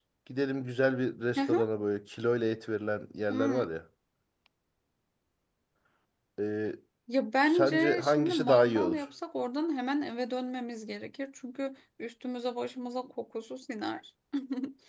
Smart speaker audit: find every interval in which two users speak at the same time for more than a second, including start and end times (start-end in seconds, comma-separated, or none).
7.4-9.0